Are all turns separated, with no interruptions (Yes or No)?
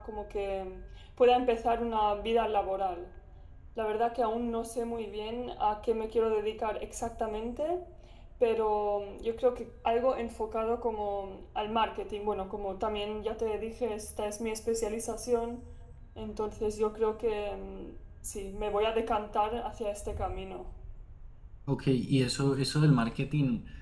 Yes